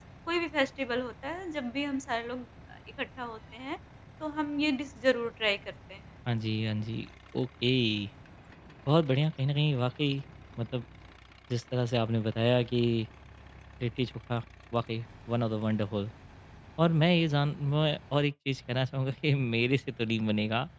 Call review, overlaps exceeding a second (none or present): none